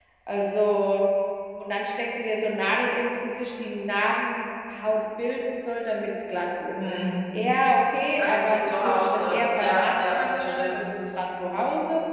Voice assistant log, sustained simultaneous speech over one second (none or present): present